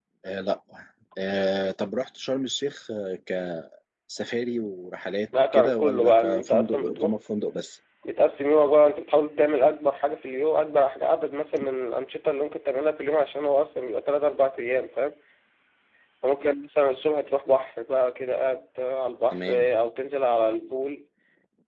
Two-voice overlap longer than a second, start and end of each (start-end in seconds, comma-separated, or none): 5.5-7.2